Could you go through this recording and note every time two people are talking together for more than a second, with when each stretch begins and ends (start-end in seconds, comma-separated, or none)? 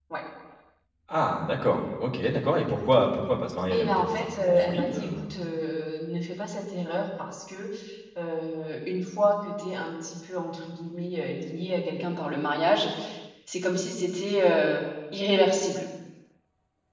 3.7-5.1